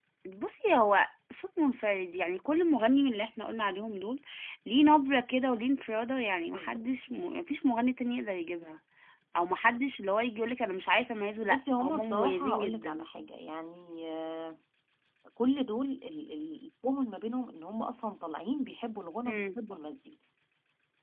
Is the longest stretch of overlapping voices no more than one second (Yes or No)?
No